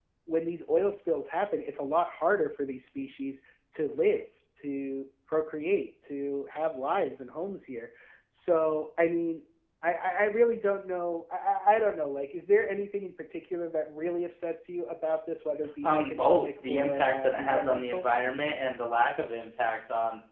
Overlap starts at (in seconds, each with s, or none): 15.8 s